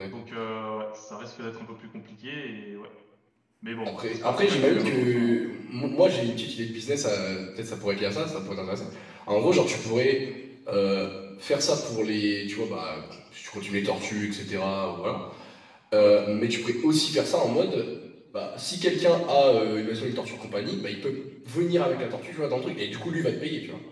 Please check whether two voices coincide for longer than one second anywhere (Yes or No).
Yes